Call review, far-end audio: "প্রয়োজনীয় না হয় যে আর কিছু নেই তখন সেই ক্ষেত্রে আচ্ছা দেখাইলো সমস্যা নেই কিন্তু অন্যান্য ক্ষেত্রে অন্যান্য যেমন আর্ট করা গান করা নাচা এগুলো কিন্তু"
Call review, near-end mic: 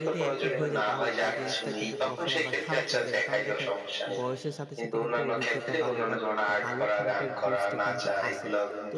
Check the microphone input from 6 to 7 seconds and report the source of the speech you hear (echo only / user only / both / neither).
both